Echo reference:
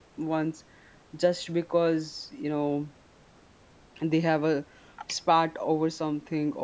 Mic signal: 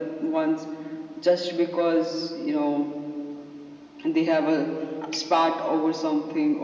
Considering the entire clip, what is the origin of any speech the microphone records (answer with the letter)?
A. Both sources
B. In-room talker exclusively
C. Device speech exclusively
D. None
C